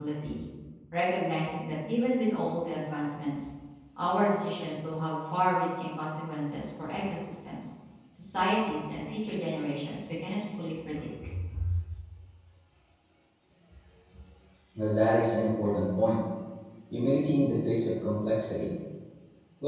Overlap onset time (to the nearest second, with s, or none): none